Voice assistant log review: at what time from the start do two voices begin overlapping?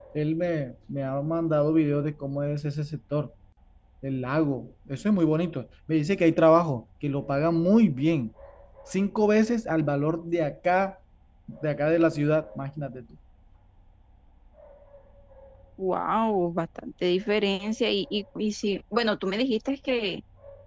none

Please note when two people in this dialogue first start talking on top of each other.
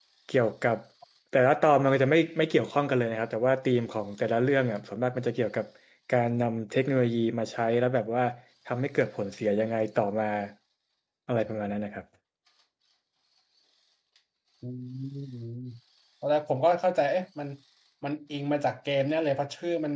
none

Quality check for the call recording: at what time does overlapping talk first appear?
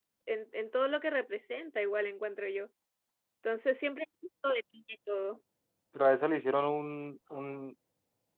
none

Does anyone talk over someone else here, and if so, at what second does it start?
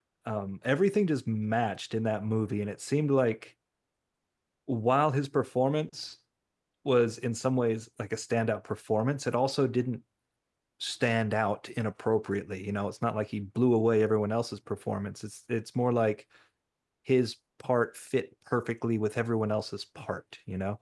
none

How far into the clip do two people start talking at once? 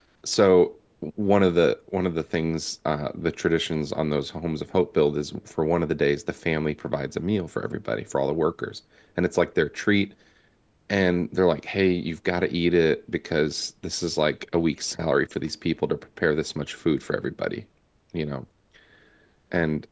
none

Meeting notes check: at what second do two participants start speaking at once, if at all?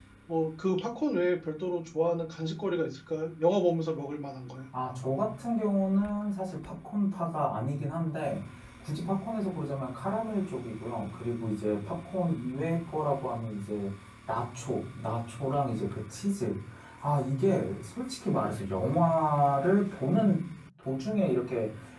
none

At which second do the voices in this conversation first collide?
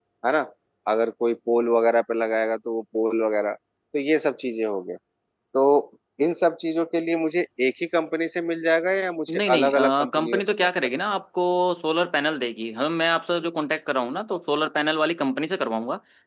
9.3 s

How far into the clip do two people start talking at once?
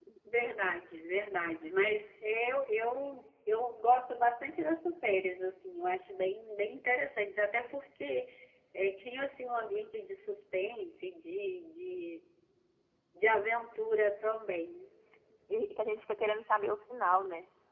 none

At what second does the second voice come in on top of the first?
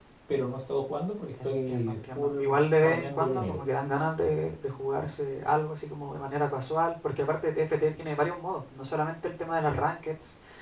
1.4 s

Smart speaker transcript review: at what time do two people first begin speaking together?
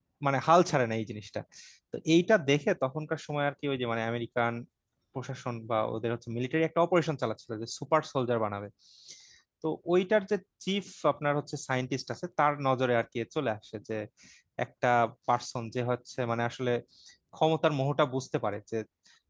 none

